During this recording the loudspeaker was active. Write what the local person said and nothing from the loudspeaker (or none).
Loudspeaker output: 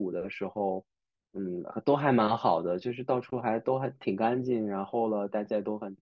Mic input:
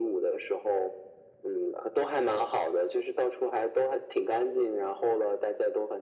none